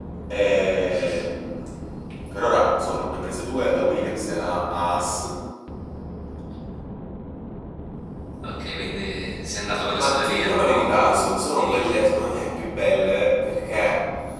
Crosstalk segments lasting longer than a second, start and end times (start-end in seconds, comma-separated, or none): 10.0-12.0